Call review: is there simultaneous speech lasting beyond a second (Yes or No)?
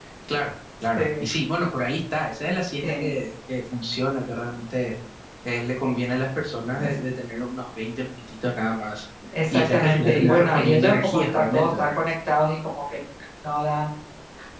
Yes